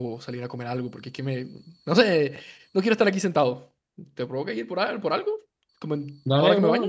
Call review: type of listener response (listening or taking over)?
taking over